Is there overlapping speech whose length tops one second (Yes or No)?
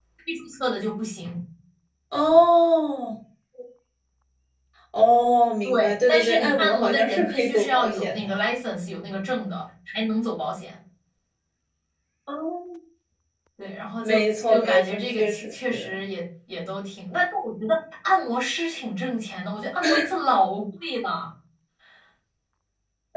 Yes